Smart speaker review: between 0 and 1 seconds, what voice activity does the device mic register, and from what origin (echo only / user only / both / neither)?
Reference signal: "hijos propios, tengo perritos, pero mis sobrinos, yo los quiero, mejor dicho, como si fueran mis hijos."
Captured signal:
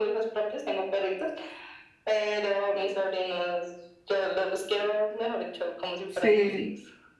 echo only